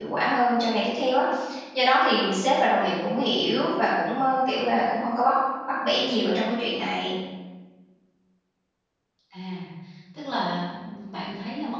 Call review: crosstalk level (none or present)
none